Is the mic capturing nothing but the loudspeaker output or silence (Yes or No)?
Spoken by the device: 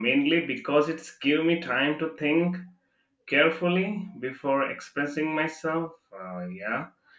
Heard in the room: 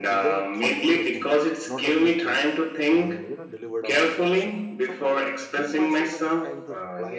No